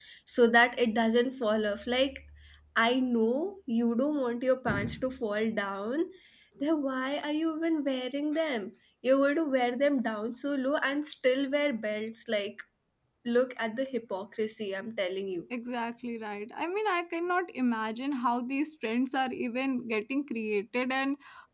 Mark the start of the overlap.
none

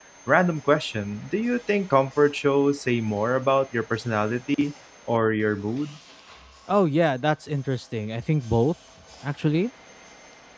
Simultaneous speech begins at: none

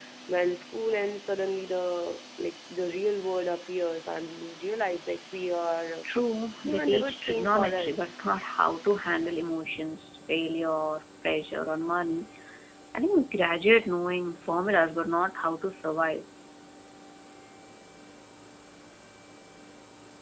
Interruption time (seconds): 6.7 s

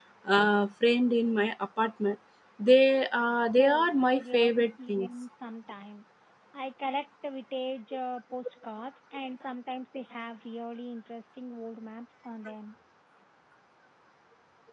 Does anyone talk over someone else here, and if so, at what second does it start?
3.5 s

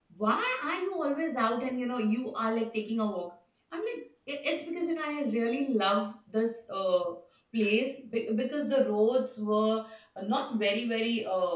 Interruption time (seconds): none

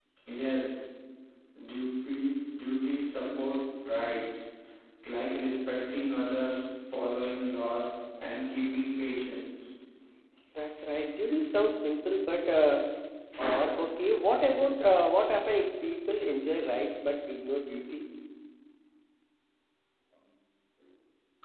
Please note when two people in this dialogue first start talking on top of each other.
none

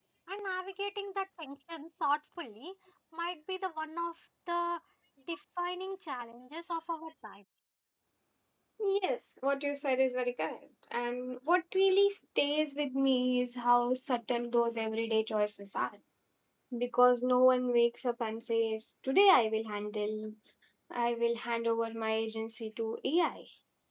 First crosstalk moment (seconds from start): none

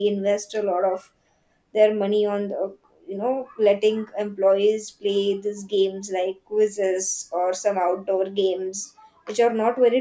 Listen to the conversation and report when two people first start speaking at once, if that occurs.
none

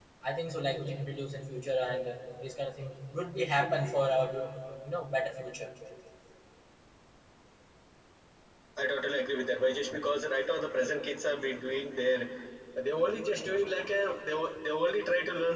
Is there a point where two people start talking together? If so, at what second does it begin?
none

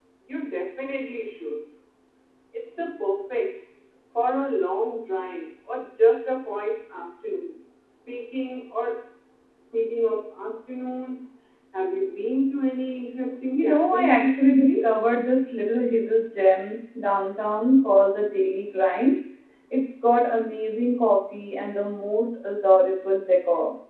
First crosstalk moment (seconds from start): 13.5 s

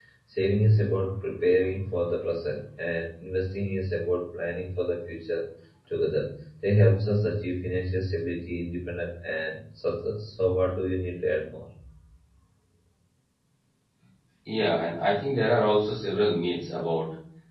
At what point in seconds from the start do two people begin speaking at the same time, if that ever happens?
none

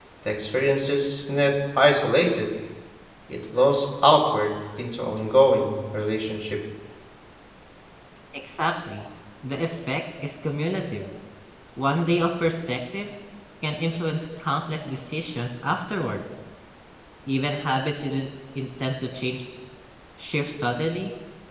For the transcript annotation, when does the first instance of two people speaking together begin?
none

